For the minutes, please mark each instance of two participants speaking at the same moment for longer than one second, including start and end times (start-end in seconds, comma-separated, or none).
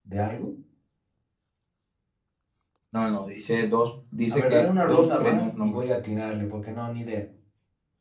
4.3-5.8